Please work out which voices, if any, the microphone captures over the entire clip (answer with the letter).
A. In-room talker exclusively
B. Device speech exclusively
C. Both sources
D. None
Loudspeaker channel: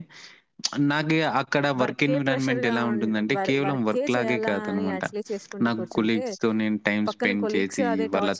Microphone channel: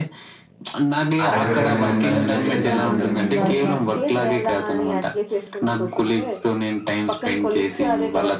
C